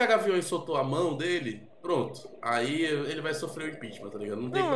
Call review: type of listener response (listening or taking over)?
taking over